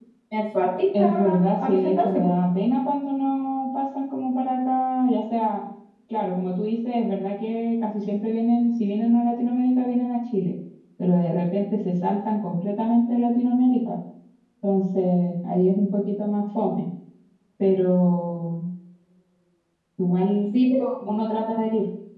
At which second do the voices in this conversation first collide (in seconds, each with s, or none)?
1.0 s